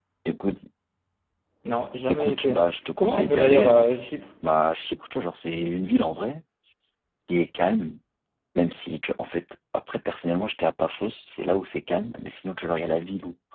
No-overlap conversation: No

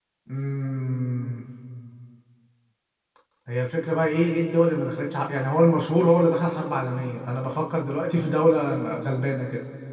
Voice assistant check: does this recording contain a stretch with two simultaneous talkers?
No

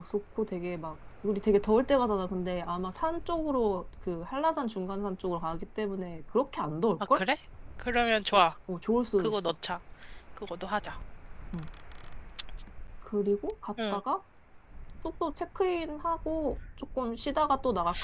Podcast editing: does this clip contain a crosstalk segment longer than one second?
No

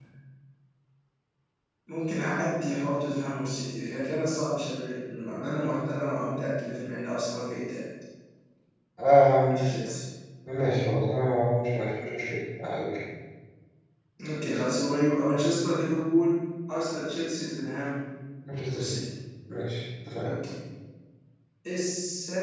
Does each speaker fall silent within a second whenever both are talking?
Yes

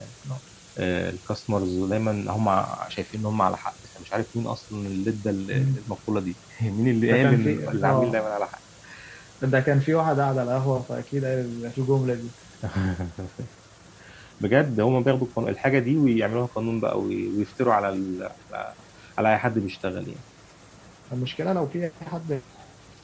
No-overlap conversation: No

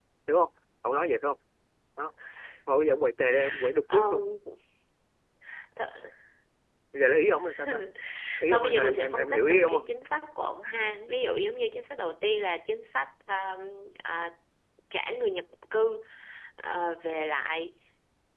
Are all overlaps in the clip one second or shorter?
No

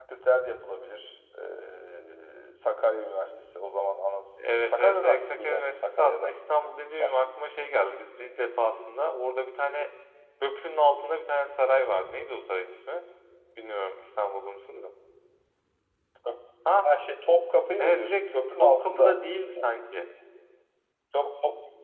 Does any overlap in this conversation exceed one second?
Yes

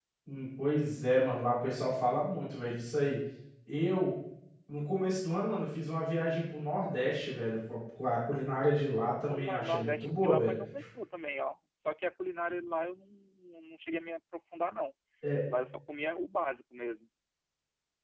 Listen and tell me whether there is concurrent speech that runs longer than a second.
Yes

